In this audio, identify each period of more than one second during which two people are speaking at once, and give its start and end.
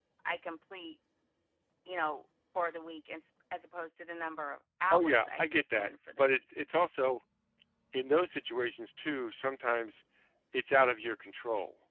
4.9-6.3

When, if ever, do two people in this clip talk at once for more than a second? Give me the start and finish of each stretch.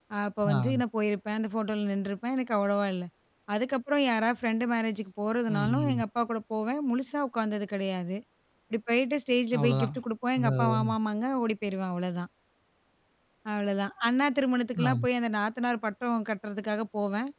none

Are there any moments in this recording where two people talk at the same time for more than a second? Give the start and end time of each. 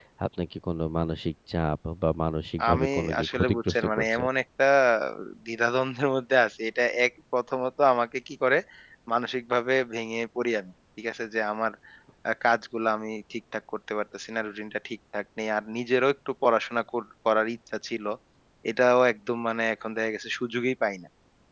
2.7-4.2

